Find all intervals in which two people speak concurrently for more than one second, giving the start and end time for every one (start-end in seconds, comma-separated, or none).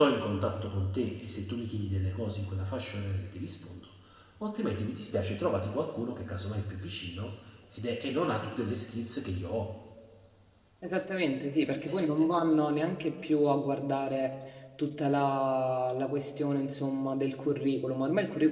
none